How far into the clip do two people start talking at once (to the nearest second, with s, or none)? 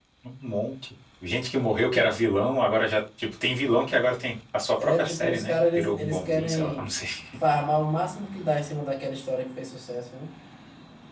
5 s